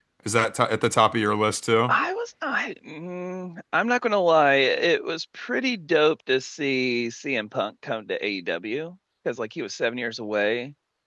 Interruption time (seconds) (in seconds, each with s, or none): none